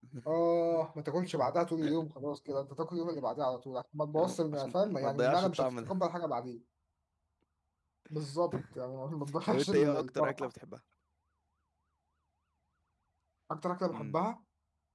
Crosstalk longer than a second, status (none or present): present